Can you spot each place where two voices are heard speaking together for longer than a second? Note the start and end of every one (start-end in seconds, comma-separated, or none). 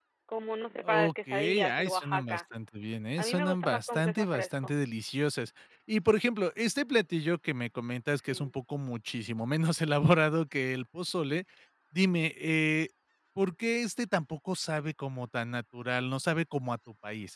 0.8-2.4, 3.2-4.7